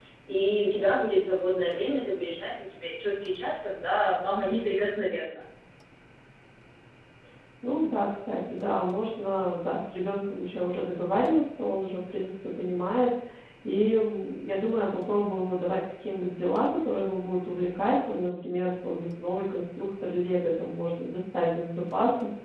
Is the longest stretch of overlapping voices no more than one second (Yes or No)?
Yes